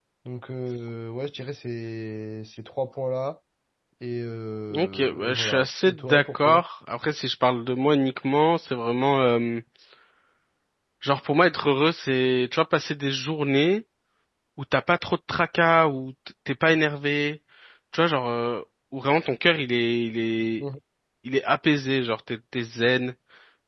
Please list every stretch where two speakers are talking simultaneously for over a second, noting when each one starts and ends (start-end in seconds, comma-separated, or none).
4.7-6.6